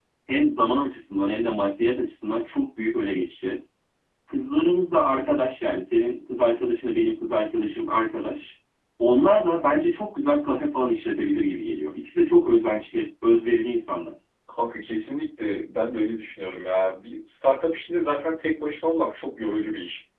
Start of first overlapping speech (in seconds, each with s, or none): none